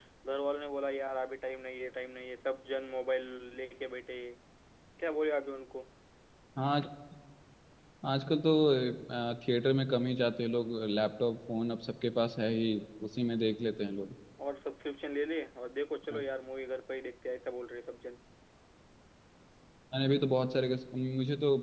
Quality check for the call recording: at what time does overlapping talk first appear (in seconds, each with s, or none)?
none